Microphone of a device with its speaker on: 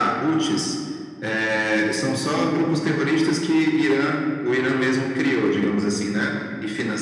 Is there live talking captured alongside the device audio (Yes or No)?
No